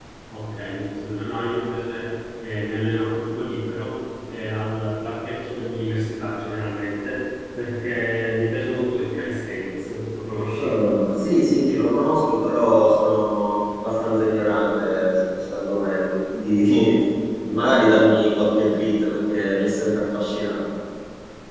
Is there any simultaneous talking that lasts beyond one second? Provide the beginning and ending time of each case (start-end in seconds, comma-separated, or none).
none